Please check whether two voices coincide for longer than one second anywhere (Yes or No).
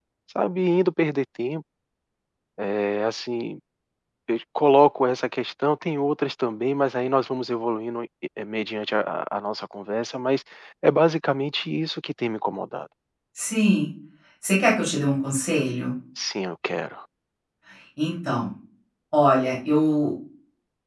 No